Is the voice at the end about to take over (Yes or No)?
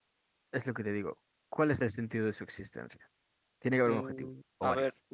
Yes